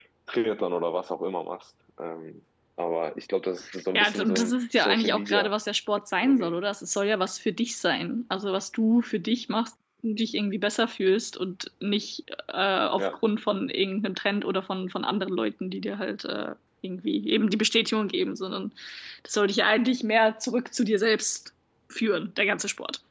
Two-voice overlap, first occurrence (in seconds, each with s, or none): 3.9 s